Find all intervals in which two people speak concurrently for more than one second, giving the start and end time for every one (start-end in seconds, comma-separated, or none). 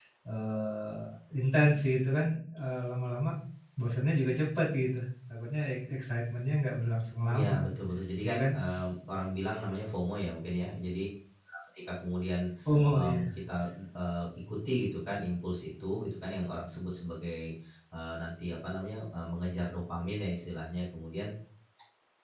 none